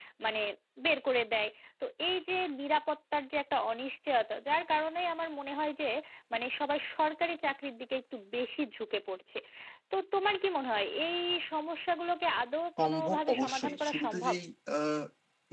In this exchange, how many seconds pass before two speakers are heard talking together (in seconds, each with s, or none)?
12.8 s